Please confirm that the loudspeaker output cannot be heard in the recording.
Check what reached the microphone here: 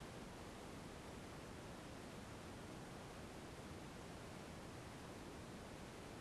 Yes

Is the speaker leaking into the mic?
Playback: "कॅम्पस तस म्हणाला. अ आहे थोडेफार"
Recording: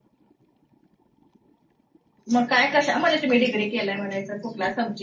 No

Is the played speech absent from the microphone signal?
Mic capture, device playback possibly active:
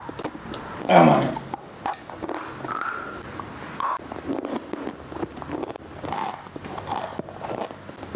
Yes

